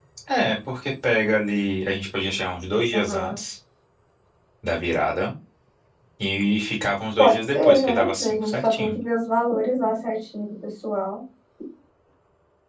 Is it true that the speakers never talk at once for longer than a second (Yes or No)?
No